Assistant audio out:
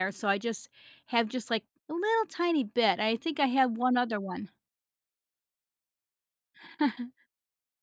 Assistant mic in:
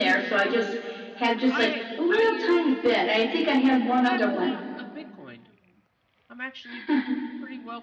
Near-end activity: present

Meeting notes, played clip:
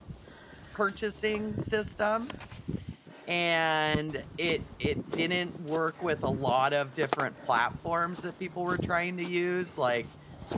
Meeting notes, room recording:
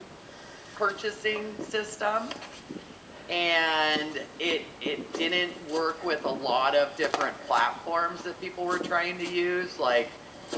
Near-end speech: none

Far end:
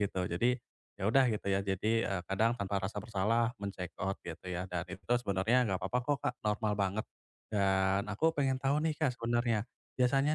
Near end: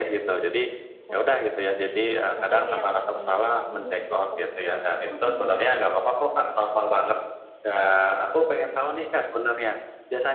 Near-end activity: present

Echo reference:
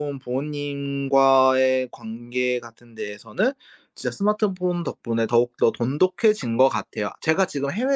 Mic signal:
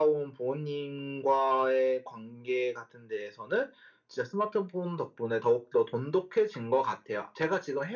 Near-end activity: none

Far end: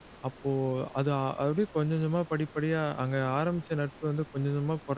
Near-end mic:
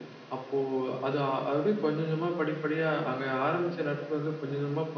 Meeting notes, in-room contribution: none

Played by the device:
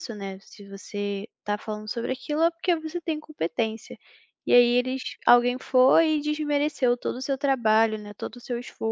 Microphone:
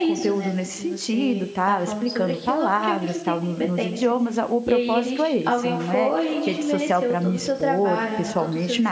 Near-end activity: present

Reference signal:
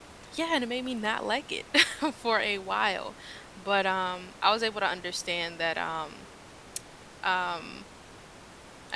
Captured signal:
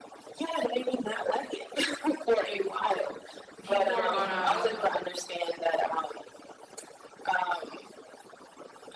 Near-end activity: present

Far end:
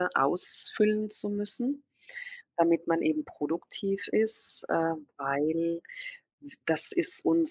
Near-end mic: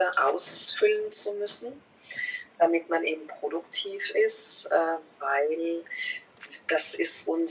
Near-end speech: none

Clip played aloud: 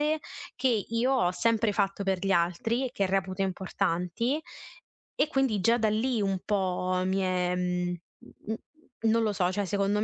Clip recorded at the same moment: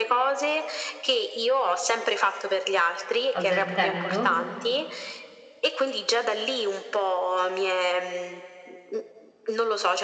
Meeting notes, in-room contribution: present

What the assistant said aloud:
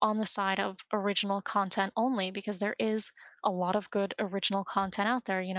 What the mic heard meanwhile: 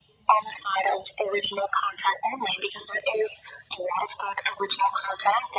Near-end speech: none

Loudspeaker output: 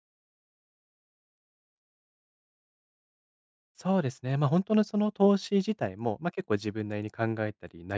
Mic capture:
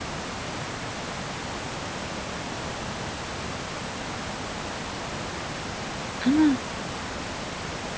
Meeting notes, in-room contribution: present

